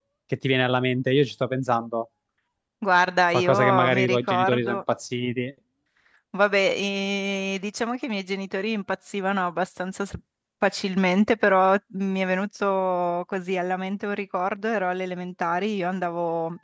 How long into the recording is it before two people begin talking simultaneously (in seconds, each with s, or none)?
3.3 s